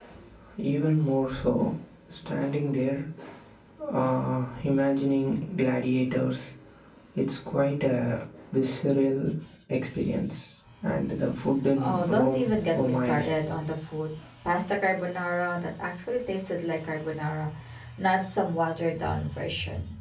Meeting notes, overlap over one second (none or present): present